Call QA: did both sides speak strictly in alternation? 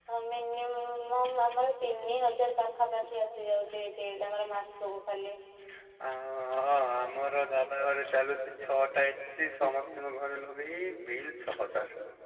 Yes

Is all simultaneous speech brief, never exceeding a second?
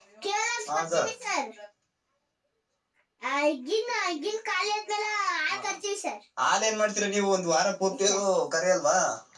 Yes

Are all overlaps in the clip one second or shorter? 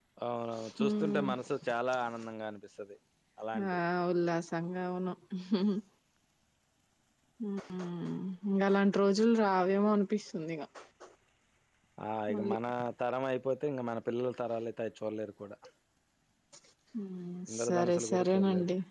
No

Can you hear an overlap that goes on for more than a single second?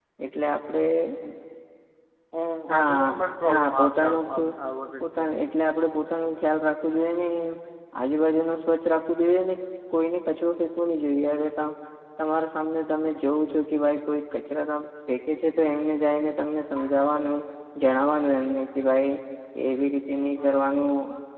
Yes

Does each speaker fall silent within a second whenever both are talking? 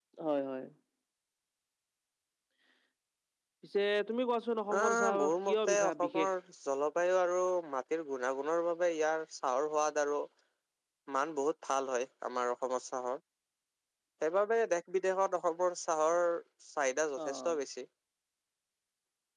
No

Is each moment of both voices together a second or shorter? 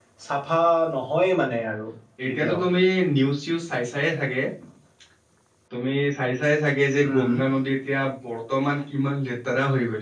Yes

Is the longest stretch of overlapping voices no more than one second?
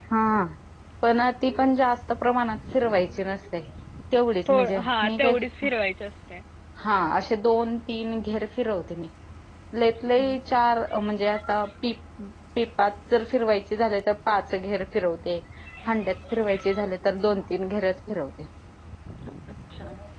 No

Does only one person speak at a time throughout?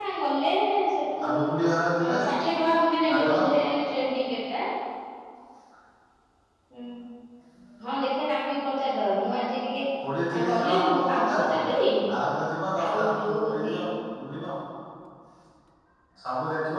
No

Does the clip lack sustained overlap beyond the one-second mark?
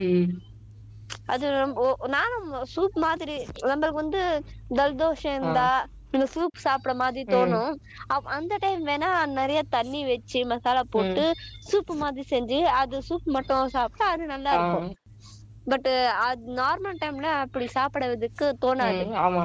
Yes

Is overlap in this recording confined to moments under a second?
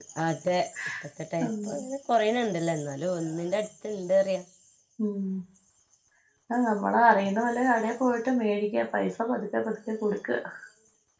Yes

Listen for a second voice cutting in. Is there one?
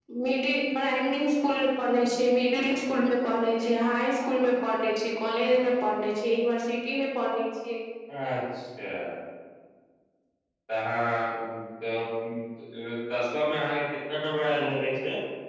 No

